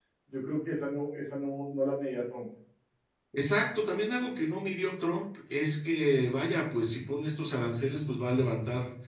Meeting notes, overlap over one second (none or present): none